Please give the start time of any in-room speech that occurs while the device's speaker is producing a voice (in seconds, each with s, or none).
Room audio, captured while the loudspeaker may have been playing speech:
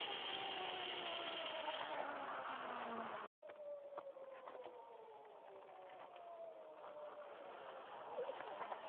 none